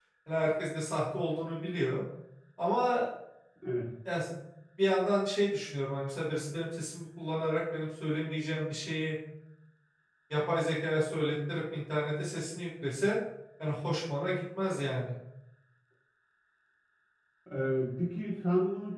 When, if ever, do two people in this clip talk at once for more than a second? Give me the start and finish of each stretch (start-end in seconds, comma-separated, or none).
none